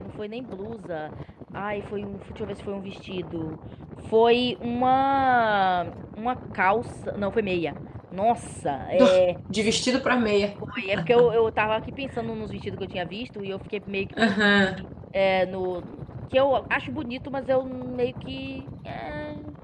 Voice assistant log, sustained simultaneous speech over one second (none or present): none